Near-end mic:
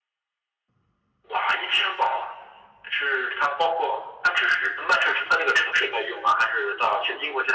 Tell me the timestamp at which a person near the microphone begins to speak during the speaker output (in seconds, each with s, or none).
none